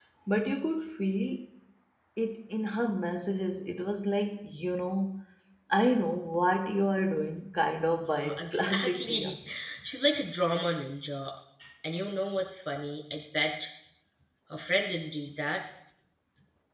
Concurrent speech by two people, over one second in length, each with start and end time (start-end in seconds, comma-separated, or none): 8.0-9.4